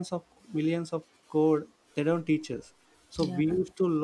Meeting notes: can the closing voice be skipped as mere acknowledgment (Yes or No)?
Yes